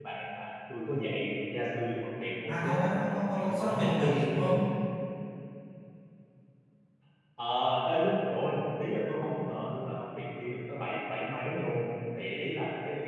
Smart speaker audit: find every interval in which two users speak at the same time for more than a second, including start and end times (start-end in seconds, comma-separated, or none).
2.5-4.0